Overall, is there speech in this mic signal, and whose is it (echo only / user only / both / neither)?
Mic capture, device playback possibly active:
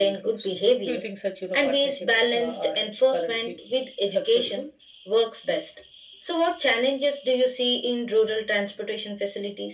echo only